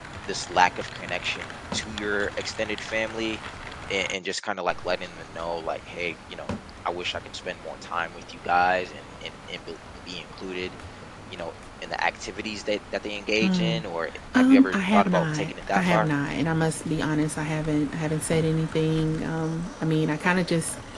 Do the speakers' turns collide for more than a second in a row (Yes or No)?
Yes